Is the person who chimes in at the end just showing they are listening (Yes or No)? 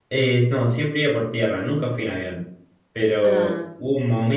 Yes